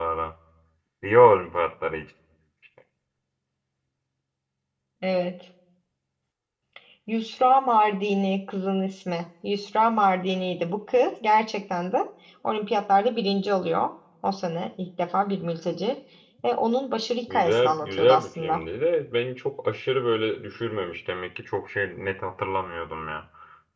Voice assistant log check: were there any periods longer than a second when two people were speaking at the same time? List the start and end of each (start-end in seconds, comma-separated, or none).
17.3-18.6